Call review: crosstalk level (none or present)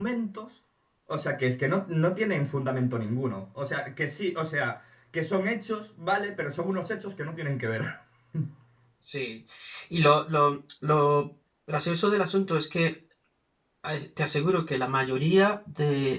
none